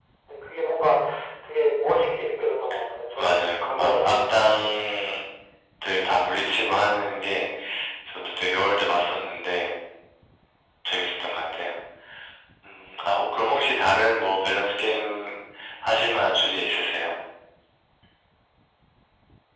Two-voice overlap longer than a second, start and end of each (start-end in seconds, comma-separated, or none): 3.2-4.7